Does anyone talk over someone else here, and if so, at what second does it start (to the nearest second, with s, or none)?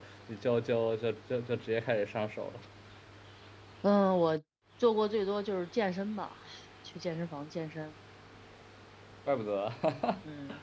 none